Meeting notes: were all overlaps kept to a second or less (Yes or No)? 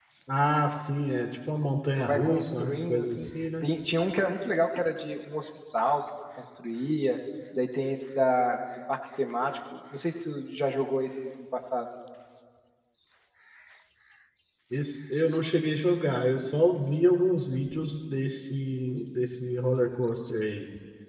No